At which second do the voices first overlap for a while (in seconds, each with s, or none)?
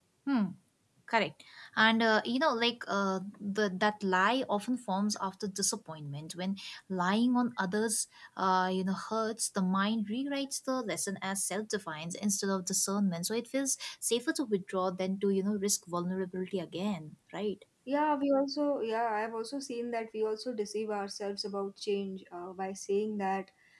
none